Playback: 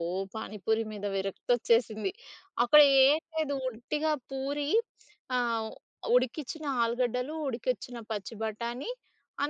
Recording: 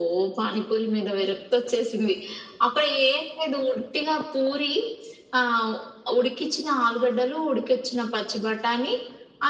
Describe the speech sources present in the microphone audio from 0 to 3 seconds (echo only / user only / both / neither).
echo only